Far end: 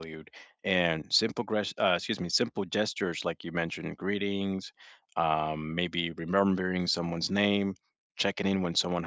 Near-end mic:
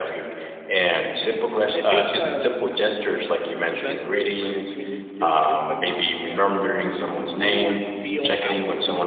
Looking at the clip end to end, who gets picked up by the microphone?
both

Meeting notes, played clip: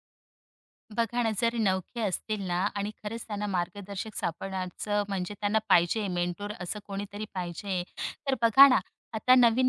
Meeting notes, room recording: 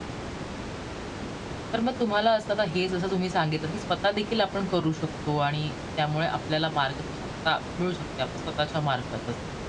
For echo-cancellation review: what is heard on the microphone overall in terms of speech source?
user only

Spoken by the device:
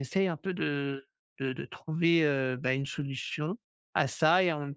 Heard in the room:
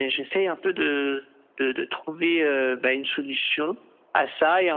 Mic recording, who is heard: echo only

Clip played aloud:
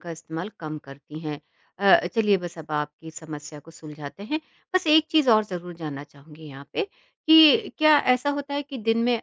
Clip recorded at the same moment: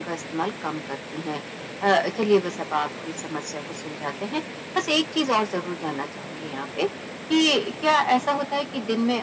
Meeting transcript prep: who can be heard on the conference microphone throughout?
echo only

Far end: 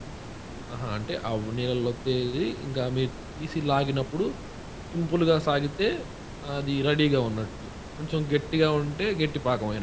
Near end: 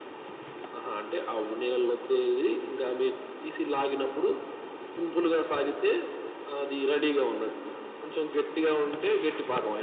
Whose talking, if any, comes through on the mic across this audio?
echo only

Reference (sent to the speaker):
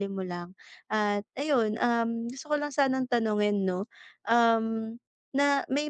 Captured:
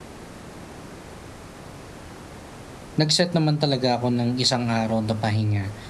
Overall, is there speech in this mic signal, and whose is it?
user only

